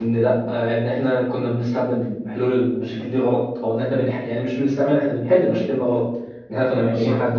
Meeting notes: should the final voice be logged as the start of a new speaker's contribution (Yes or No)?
No